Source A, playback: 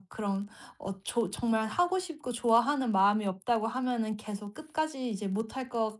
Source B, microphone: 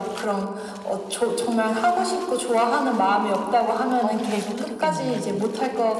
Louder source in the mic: echo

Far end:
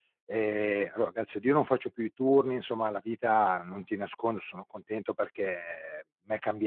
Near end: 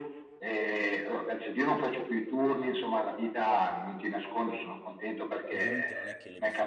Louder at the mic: echo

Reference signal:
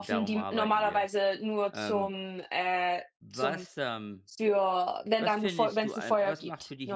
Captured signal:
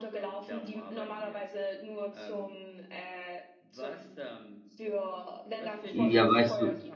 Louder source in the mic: user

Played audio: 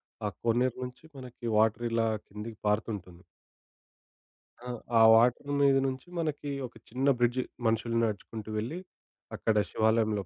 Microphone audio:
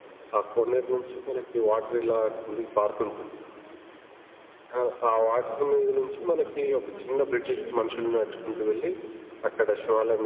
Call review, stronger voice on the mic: echo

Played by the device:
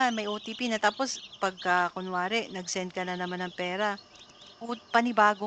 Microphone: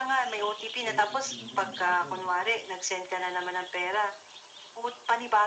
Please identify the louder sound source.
echo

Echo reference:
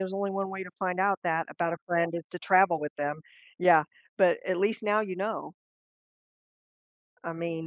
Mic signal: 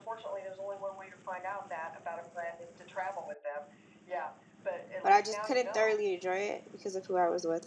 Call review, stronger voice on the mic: user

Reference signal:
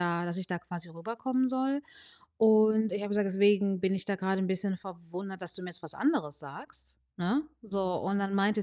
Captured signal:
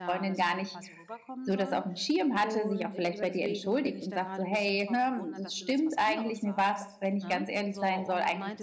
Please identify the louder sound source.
user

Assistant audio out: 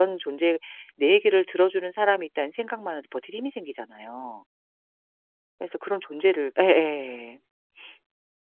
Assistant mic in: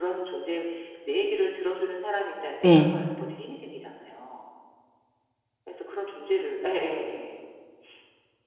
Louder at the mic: user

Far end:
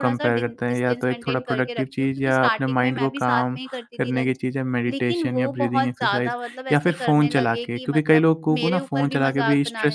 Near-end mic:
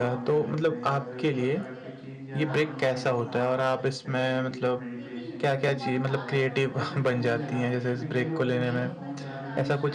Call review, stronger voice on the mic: user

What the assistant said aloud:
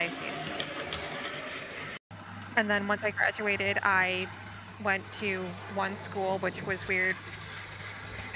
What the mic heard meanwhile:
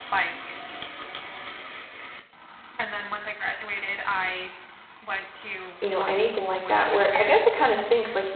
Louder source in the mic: user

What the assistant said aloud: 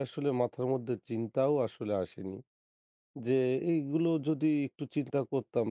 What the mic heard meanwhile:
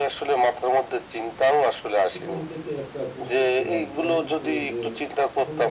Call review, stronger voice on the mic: echo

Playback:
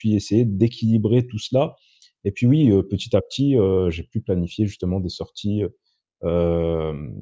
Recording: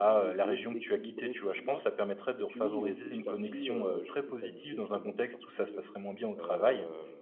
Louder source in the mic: user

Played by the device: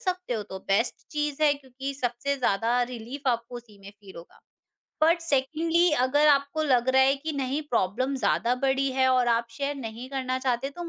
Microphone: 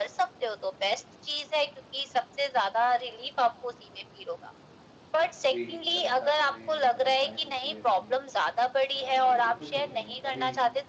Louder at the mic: echo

